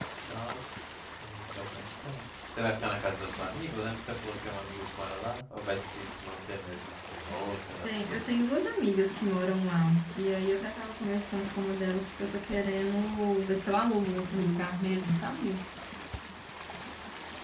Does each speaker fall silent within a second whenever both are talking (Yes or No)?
Yes